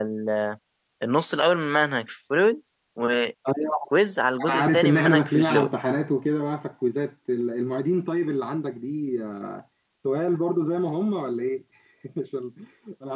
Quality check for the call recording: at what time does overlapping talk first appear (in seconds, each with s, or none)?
4.5 s